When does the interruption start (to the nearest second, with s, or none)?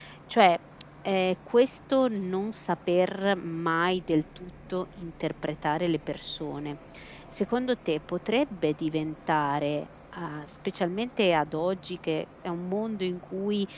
none